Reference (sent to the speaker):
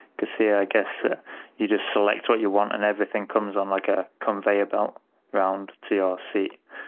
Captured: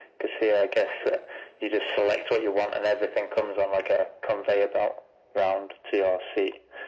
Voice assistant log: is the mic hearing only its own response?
Yes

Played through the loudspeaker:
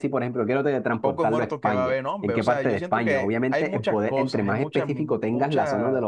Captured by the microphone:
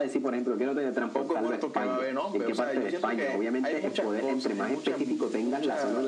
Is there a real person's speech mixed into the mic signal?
No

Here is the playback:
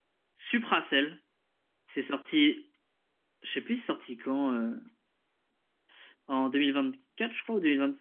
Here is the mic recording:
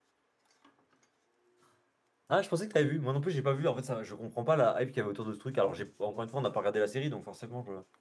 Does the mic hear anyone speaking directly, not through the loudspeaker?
Yes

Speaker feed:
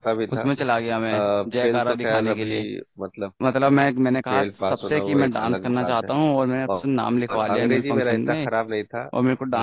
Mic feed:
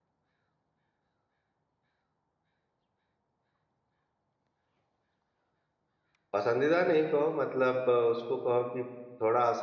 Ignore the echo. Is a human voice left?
Yes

